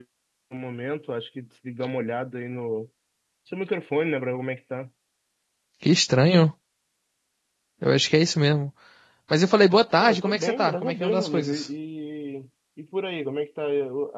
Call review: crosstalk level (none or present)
present